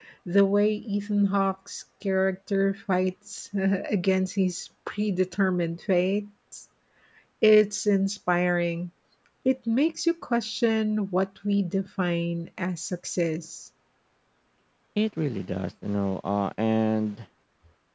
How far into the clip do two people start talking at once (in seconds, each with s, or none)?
none